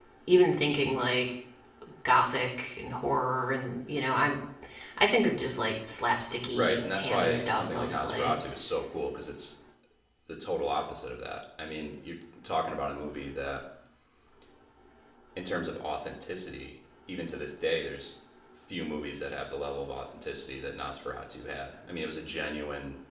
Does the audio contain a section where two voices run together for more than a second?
Yes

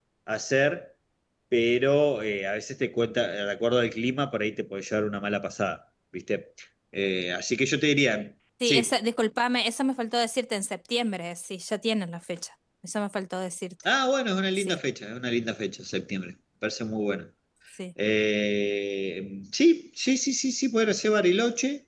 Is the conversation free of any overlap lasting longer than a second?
Yes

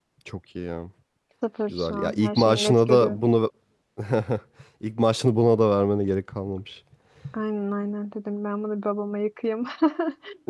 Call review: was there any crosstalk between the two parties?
Yes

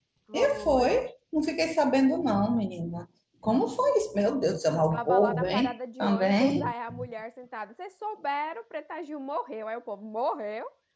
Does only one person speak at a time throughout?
No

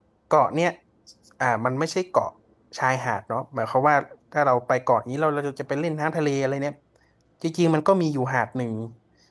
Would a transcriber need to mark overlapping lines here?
No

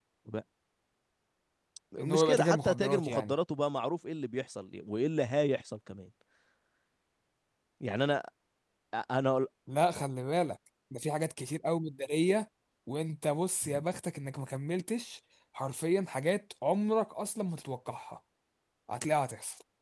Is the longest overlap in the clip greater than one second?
Yes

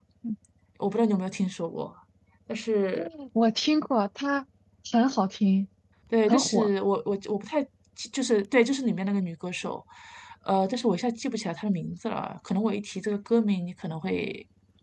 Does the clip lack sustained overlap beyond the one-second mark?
Yes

